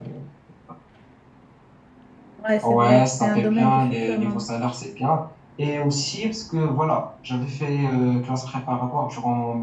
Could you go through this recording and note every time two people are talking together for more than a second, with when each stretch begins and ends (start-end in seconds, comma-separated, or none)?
2.6-4.5